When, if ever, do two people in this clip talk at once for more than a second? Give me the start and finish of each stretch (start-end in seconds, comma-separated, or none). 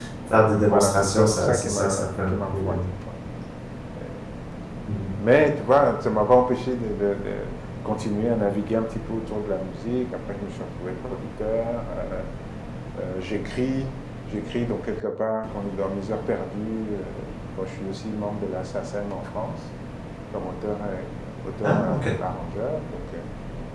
0.6-2.9